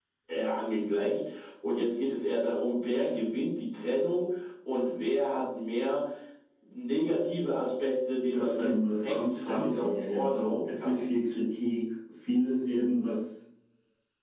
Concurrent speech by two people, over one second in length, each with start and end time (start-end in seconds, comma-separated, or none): 8.3-11.0